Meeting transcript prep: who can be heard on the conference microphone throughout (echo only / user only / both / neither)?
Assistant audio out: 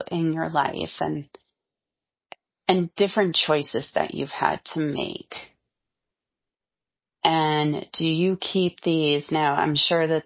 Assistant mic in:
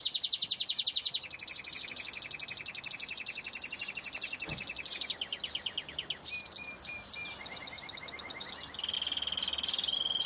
neither